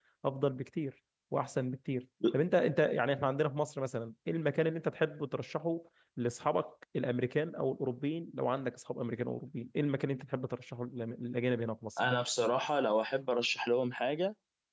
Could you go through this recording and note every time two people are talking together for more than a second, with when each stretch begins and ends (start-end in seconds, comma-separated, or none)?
none